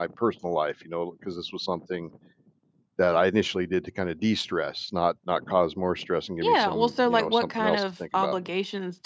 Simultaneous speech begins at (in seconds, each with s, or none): 6.4 s